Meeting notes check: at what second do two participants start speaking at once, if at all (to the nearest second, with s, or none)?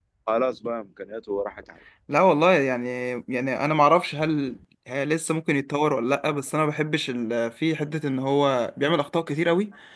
none